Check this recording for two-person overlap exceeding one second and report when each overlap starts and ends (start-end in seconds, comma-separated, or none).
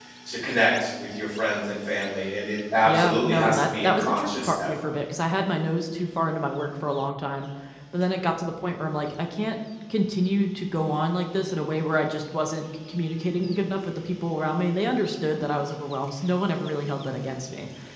2.9-4.9